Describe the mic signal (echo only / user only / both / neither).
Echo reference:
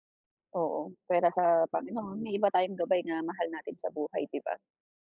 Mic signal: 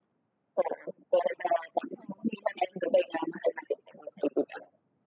echo only